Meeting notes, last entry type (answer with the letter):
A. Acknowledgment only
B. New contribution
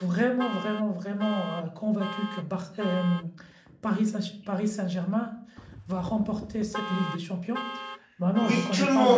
B